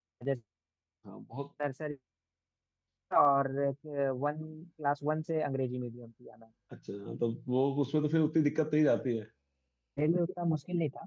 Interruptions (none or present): none